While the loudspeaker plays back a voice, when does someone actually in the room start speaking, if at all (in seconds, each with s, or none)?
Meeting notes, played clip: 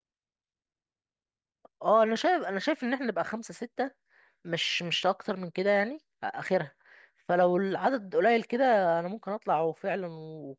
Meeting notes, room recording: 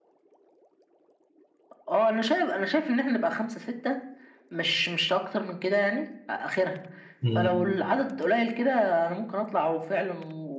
7.2 s